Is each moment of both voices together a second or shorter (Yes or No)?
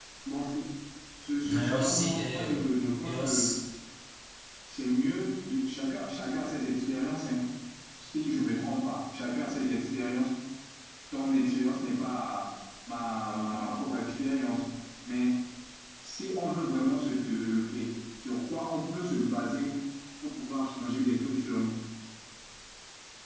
No